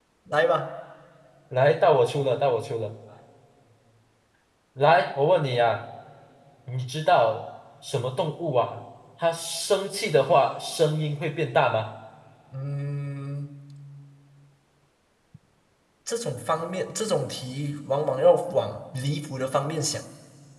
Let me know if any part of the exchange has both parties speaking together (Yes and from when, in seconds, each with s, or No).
No